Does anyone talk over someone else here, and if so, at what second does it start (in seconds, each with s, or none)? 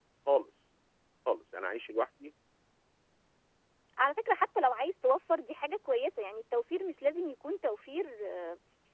none